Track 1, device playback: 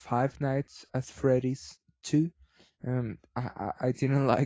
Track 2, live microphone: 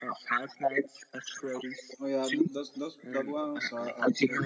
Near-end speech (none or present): present